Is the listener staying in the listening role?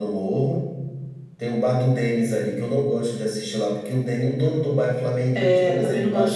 No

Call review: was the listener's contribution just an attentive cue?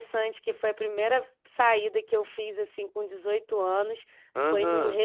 Yes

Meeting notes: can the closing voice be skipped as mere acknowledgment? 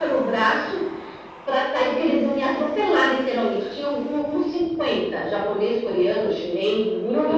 Yes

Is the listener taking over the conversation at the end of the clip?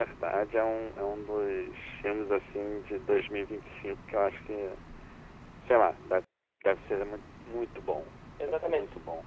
Yes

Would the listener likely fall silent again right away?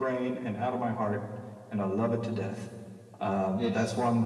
Yes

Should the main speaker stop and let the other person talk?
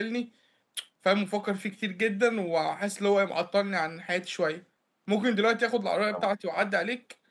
No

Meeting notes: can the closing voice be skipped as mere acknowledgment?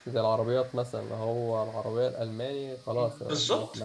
No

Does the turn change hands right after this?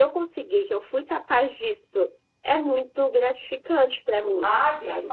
Yes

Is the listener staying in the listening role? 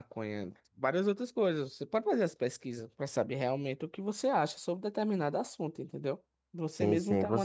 No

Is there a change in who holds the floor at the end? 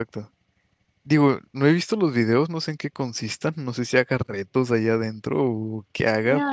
Yes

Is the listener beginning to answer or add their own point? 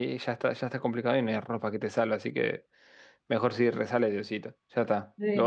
Yes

